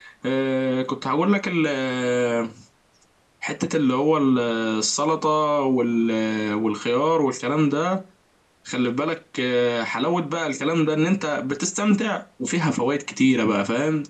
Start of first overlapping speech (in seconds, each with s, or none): none